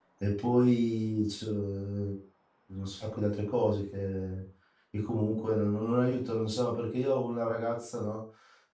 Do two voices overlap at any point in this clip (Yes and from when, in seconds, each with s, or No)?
No